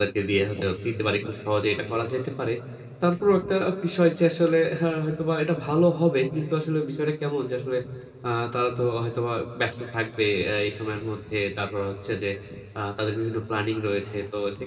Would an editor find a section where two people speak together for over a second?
No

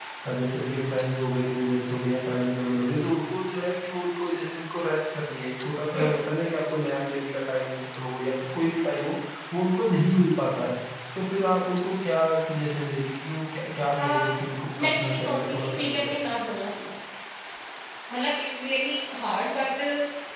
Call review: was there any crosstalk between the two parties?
Yes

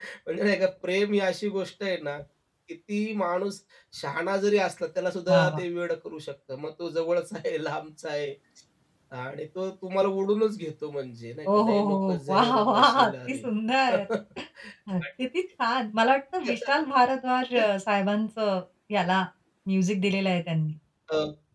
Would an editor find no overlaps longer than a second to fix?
No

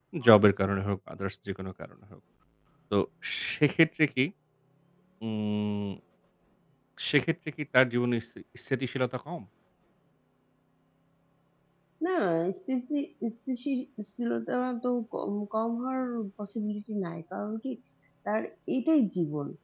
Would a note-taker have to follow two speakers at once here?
No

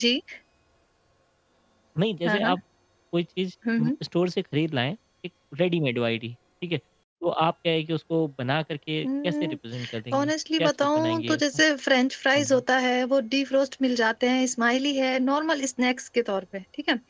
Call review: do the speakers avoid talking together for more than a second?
No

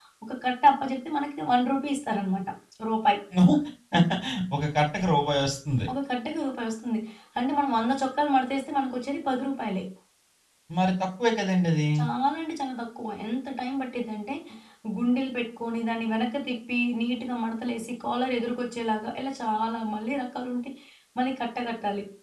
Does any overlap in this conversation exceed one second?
No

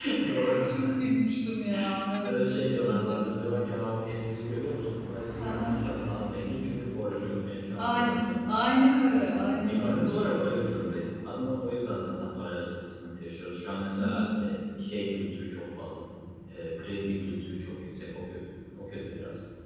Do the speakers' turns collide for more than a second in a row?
Yes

